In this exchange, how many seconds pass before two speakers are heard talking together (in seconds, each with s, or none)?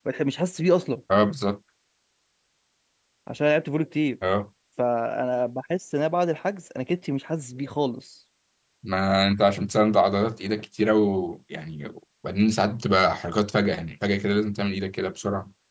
none